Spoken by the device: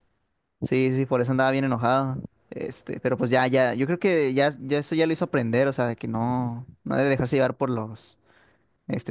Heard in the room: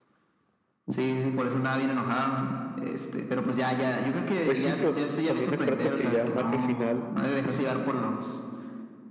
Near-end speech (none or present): present